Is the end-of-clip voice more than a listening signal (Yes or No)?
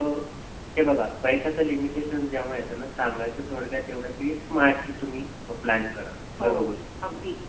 Yes